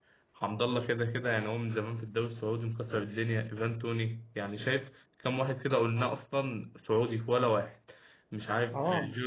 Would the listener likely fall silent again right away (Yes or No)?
Yes